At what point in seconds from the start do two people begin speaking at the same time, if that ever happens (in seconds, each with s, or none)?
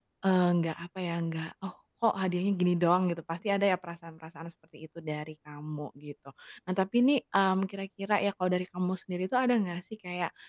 none